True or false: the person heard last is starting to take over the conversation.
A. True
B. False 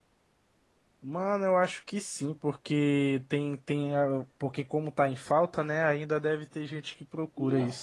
A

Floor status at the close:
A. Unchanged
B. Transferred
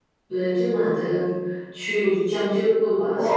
B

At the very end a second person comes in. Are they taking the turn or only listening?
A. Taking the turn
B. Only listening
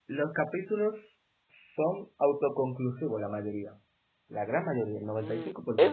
A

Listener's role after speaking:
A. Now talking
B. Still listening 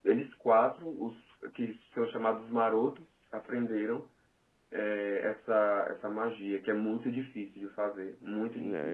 A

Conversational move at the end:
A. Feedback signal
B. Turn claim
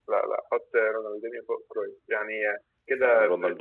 B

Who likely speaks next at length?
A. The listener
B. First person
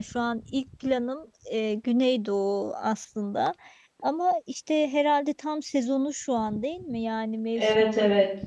A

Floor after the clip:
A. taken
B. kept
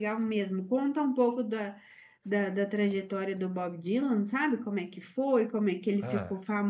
B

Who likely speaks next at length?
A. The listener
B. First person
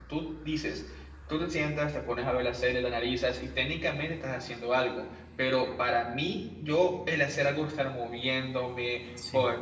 B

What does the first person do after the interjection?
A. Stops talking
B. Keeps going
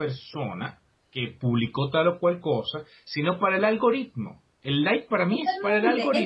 A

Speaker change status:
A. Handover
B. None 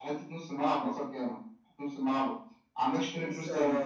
A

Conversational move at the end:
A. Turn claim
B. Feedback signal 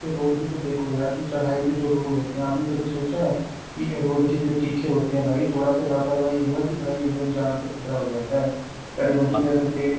B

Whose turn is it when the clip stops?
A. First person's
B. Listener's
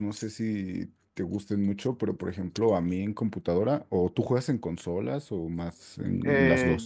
B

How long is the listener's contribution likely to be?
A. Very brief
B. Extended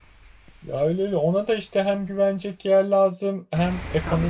A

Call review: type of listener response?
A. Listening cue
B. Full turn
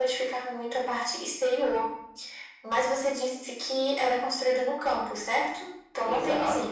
B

